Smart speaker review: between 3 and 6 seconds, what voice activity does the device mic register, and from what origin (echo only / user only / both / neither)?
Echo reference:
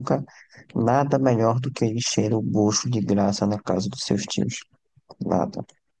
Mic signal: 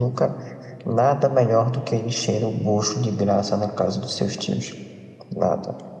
echo only